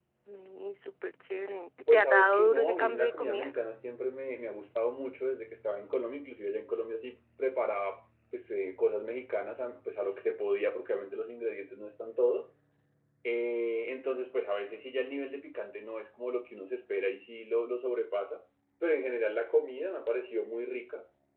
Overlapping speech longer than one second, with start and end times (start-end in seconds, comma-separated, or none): 1.9-3.5